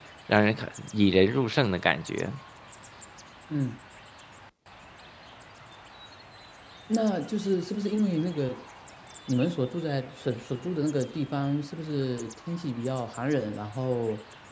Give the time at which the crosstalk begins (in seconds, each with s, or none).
none